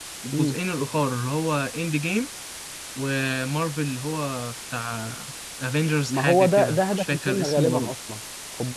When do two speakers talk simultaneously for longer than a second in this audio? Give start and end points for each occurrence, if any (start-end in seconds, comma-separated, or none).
6.1-7.9